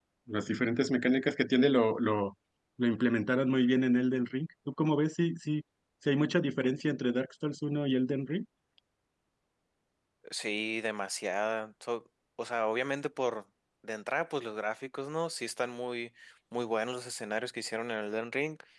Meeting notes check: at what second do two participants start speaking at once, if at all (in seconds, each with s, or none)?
none